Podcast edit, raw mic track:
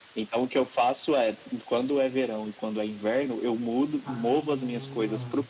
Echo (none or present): present